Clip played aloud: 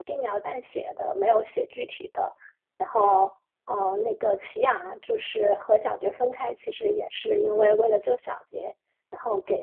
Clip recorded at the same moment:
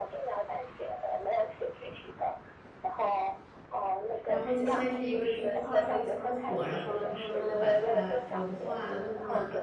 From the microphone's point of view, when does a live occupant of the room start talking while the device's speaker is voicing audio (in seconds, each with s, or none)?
4.3 s